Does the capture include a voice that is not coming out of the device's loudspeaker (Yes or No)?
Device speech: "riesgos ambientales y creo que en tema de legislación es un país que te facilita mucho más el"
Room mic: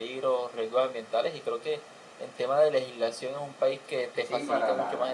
Yes